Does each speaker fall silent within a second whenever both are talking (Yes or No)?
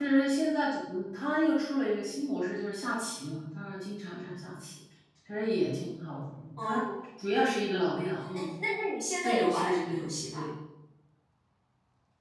No